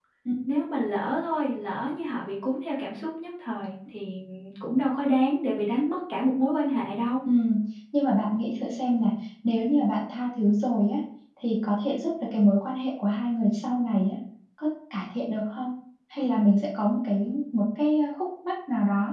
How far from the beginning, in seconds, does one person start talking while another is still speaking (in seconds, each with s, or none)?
none